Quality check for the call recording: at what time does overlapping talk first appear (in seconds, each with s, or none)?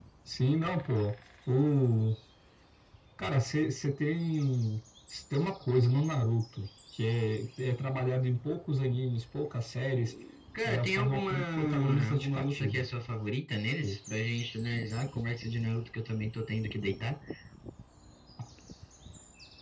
10.6 s